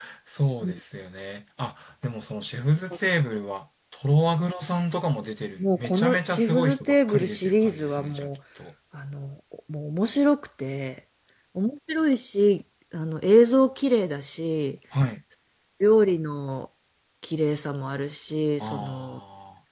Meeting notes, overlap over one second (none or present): present